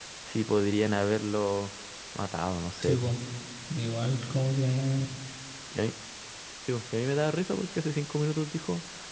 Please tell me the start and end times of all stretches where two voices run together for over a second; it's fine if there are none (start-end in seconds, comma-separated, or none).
none